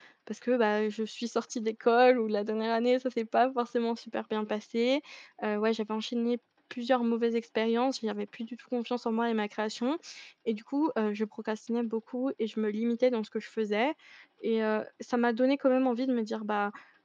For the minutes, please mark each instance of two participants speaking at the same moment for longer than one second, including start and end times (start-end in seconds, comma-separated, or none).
none